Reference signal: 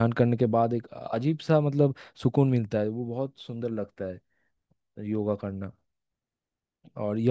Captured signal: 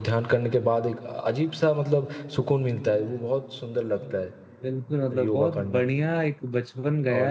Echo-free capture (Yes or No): No